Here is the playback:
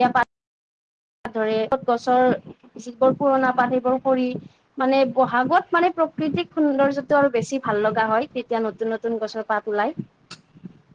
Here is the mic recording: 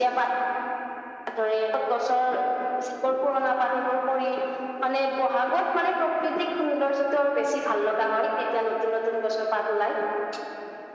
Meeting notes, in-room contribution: none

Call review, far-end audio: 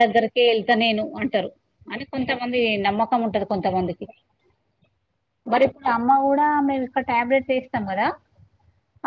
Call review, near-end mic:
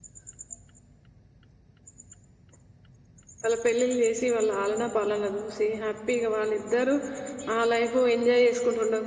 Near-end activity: present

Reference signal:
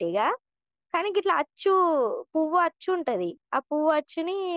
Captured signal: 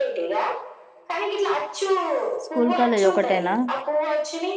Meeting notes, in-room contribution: present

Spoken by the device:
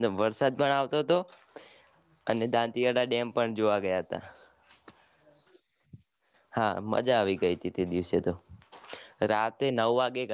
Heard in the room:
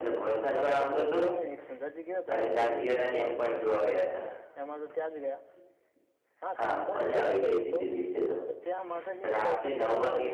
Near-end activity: present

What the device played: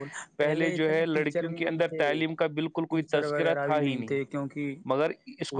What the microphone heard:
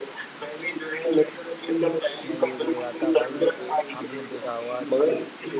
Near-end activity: present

